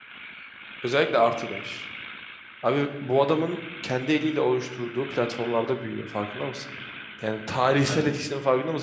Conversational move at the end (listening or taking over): listening